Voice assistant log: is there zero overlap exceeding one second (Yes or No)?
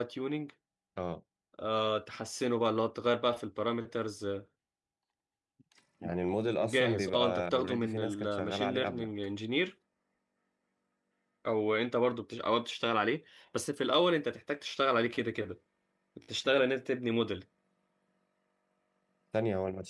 No